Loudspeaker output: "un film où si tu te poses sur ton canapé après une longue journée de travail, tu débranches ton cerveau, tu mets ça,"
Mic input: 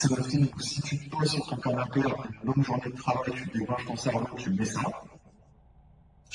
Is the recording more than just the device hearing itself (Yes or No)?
No